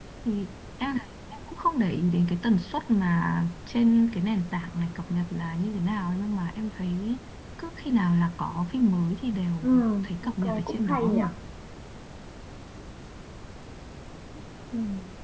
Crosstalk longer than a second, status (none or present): present